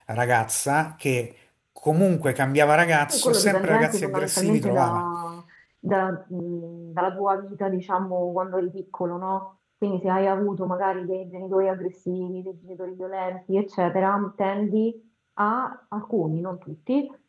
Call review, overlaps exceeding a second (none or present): present